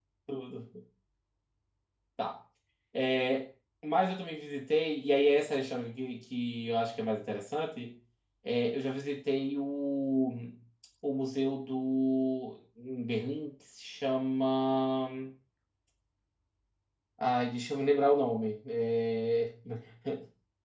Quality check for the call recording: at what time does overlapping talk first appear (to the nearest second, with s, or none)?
none